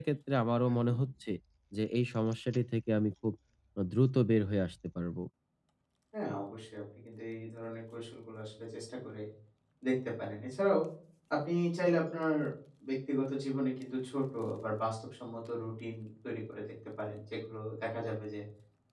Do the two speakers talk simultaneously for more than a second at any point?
No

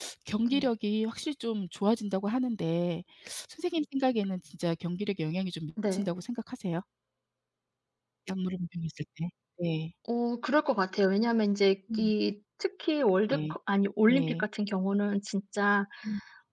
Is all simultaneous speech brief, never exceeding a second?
Yes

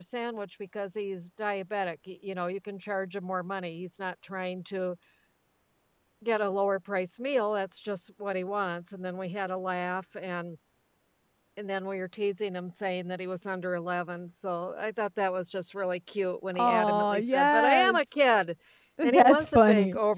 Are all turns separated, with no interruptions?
No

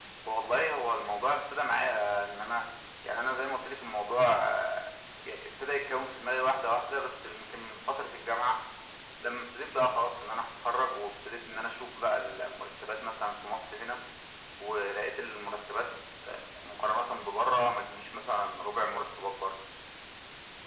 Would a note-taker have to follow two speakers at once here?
No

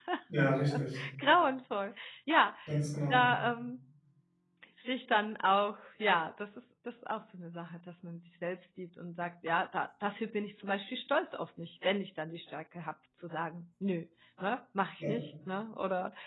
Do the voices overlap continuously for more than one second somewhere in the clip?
No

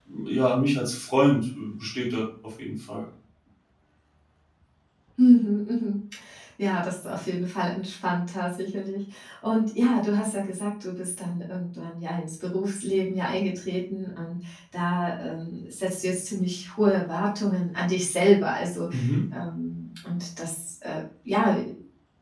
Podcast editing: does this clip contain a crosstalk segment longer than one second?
No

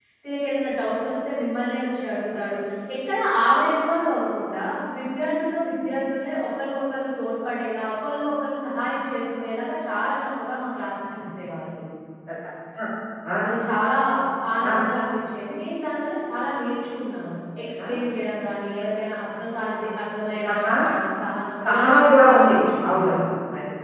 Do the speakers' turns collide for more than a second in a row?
Yes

